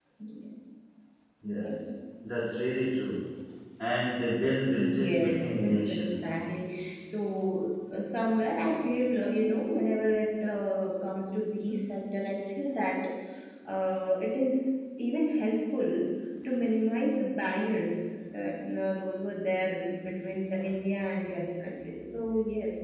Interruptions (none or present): present